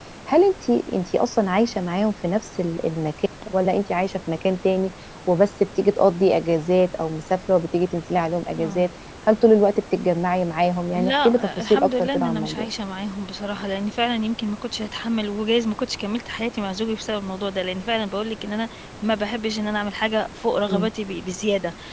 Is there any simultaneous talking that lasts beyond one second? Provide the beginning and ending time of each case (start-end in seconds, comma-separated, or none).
10.9-12.7